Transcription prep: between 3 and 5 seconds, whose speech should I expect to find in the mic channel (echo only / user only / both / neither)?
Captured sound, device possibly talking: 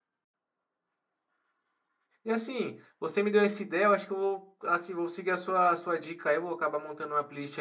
user only